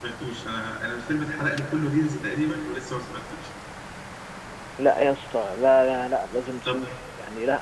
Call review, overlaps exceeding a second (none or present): none